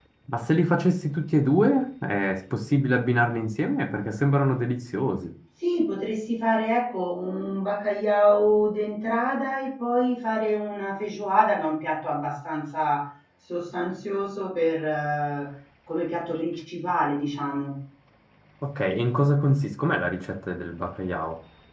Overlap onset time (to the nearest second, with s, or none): none